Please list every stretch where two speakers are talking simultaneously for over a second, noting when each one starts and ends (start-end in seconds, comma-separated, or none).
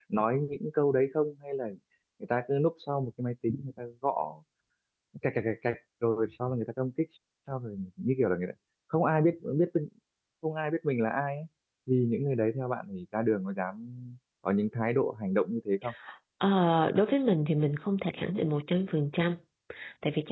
none